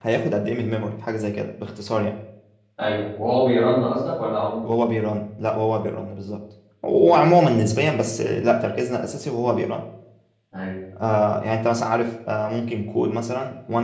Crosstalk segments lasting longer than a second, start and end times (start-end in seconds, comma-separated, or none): none